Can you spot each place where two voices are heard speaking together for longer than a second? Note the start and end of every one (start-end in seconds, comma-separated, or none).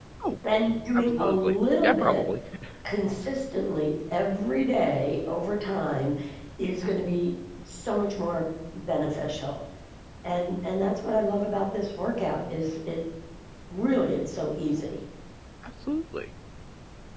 0.9-2.2